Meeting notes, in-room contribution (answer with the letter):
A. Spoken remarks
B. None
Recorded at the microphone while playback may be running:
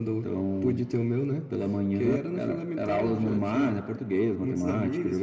B